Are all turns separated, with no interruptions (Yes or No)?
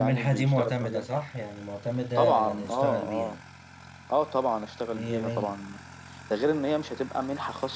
No